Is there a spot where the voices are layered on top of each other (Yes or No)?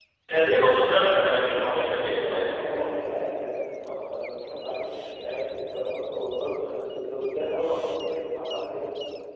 Yes